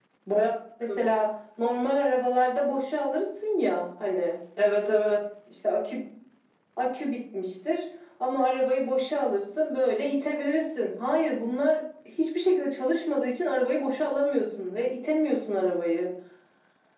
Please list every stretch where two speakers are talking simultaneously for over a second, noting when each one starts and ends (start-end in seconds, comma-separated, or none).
none